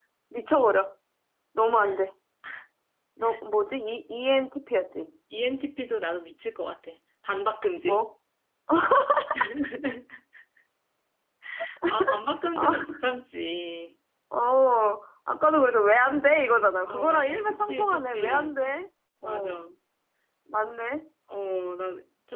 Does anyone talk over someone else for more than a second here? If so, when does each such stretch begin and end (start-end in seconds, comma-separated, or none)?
16.9-18.6